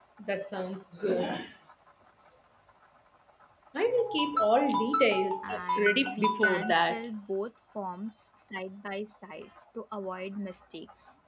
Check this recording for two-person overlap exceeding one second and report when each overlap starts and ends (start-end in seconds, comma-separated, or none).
5.4-7.0